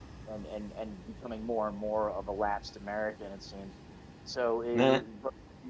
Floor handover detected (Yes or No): No